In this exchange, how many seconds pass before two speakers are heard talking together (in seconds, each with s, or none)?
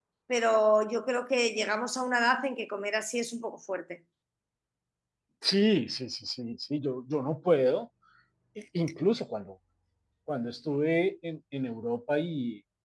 none